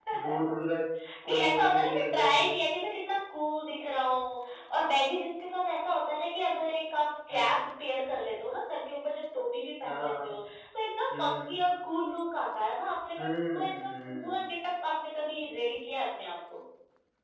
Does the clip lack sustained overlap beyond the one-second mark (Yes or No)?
No